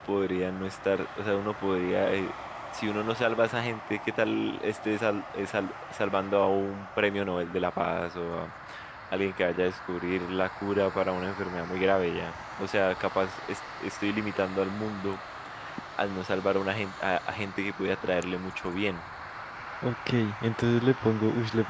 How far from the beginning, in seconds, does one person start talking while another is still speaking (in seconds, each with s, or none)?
none